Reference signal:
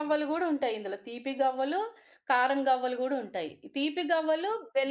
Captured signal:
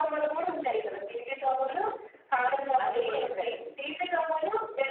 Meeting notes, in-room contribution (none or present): present